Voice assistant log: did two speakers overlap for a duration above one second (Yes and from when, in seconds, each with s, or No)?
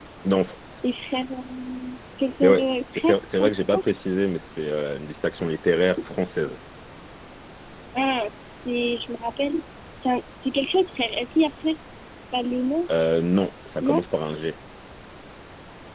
Yes, from 2.4 s